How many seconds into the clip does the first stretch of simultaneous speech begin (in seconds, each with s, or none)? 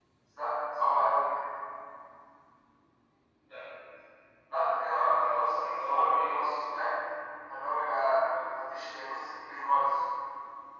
5.0 s